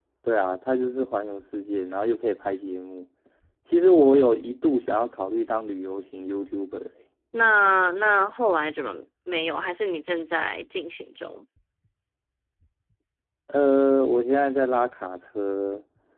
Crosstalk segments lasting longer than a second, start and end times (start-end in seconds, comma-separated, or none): none